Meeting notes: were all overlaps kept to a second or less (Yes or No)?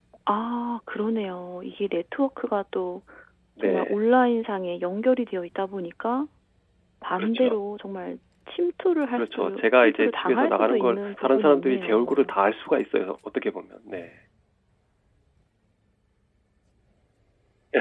No